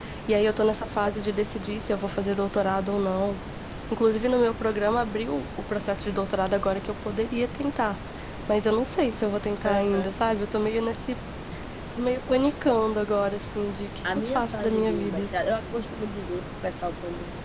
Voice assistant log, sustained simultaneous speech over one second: present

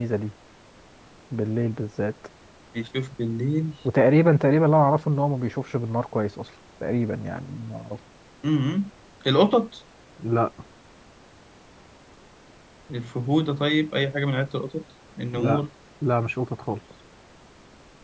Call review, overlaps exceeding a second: none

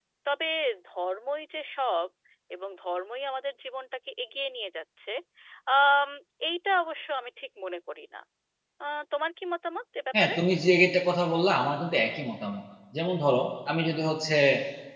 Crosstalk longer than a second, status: none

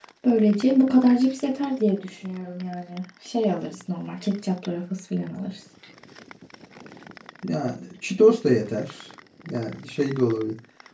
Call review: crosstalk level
none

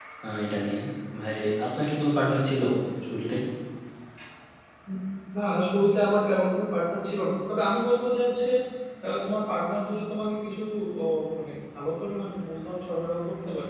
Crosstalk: none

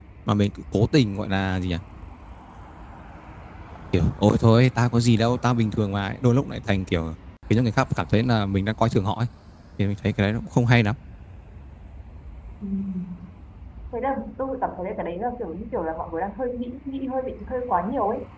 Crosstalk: none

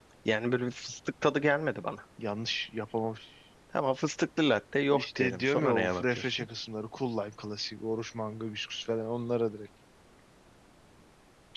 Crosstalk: present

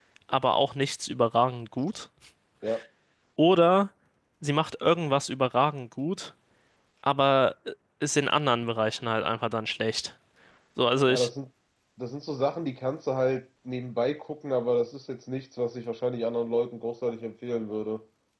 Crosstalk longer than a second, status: none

